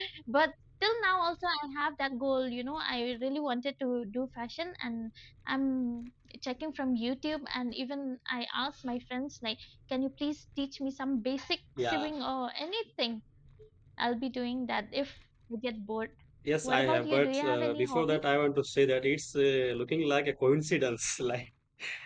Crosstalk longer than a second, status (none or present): present